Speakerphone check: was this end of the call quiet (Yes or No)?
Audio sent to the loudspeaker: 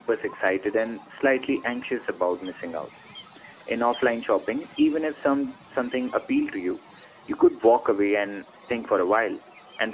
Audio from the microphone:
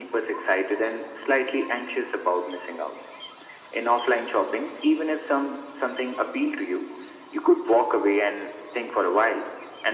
Yes